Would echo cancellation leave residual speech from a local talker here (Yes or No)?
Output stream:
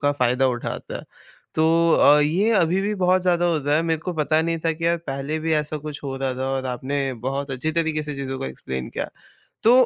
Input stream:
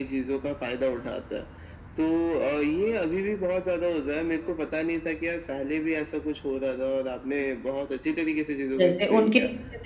Yes